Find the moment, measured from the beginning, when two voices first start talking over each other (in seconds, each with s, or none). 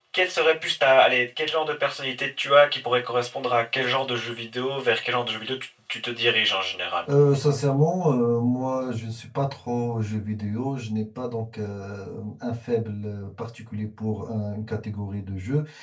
none